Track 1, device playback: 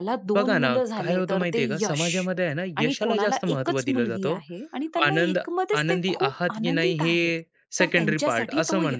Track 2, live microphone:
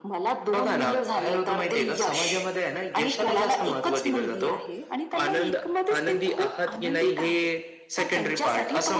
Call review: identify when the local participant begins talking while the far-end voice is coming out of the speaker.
none

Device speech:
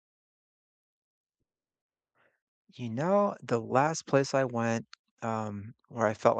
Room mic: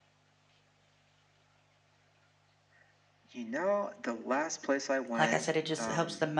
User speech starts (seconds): 5.2 s

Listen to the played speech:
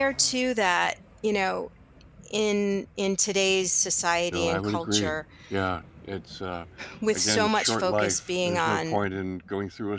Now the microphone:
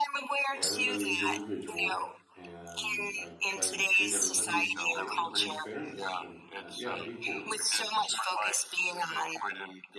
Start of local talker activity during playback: 0.5 s

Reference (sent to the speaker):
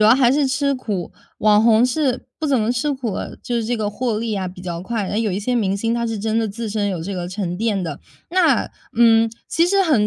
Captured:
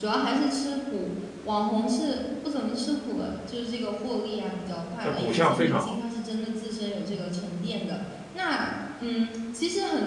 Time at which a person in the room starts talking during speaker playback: 5.0 s

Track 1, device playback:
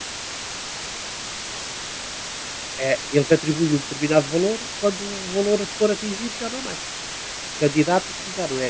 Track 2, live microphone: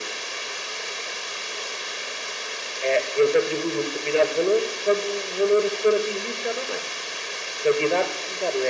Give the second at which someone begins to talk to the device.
none

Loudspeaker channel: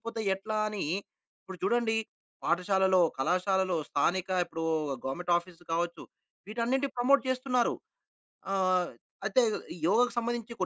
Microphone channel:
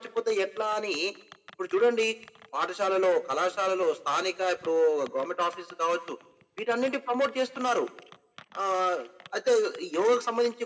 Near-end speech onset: none

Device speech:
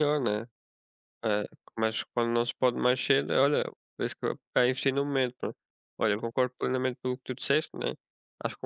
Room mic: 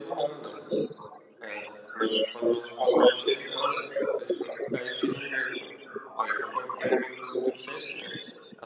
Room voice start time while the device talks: none

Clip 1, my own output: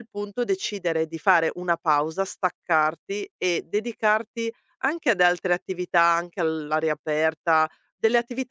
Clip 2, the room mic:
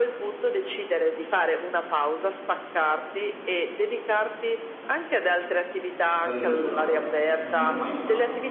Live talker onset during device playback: 6.2 s

